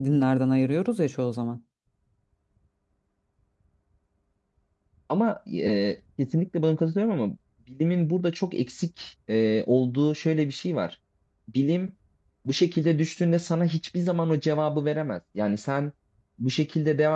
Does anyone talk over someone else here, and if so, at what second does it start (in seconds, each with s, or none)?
none